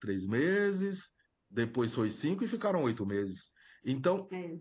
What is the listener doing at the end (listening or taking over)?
listening